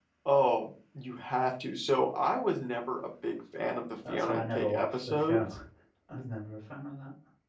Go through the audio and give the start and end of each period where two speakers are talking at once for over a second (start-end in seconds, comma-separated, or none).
4.1-5.4